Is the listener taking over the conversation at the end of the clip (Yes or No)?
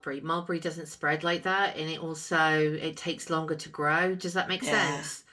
Yes